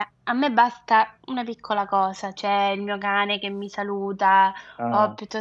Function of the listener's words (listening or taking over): listening